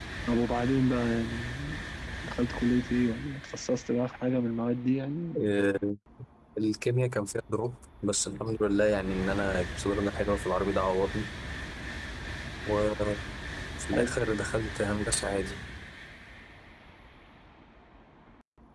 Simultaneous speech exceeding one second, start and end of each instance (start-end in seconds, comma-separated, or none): none